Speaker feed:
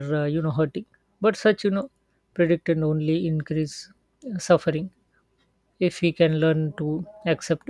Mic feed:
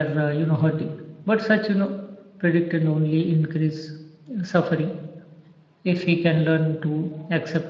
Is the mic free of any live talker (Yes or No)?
Yes